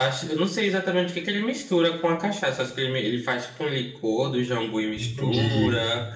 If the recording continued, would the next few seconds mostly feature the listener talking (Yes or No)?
No